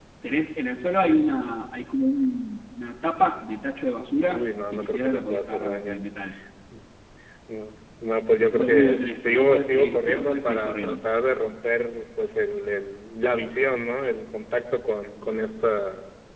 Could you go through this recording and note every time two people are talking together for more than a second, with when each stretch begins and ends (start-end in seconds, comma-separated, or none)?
4.3-6.0, 8.5-11.0